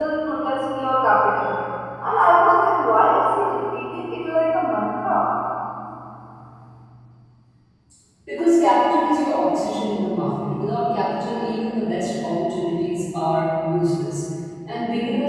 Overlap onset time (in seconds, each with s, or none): none